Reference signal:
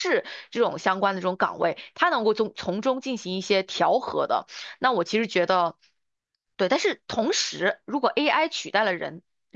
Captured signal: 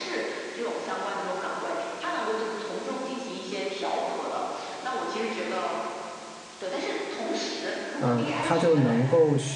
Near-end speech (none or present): present